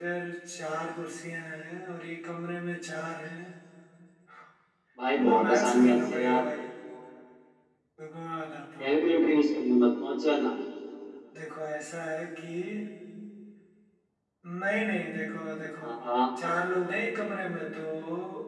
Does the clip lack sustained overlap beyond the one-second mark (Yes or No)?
No